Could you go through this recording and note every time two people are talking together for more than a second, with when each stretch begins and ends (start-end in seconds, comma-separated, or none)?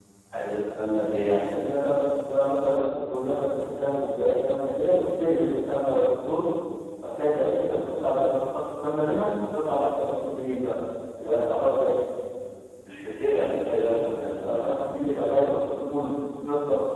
none